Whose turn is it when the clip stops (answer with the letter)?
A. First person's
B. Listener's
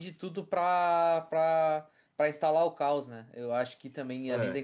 A